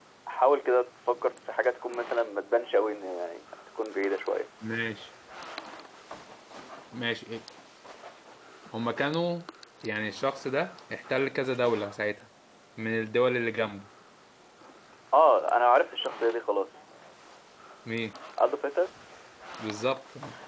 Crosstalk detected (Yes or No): No